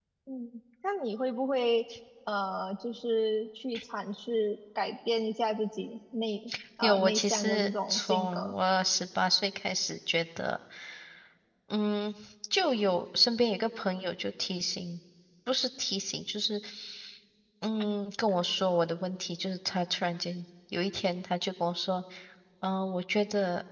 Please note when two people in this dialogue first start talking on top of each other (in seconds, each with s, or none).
6.8 s